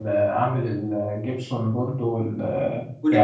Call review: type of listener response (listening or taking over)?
listening